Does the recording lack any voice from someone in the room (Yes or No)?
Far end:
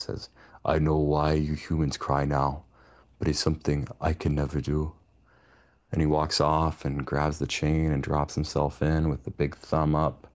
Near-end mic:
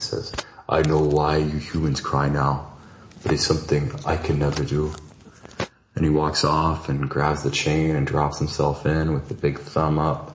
Yes